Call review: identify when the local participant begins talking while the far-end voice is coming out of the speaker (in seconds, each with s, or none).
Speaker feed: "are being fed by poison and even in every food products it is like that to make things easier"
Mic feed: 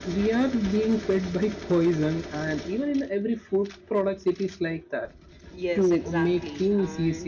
5.5 s